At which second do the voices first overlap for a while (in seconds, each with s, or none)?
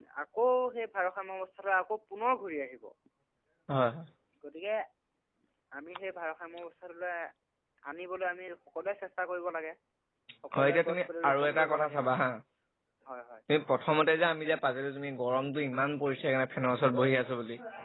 10.6 s